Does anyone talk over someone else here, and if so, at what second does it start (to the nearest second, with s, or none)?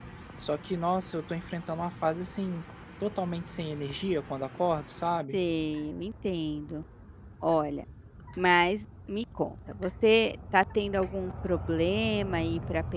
none